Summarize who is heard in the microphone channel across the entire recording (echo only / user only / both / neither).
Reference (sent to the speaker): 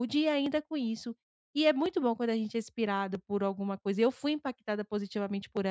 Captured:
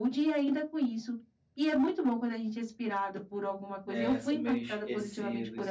both